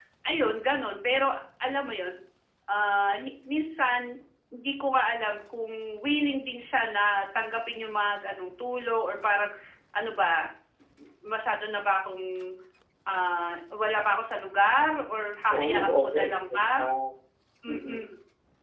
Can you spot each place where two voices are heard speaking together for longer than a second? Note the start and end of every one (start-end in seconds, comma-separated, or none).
15.5-16.8